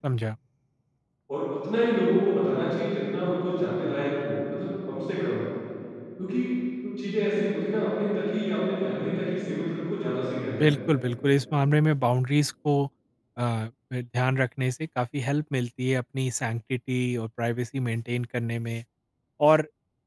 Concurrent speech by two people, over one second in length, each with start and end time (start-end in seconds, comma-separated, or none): none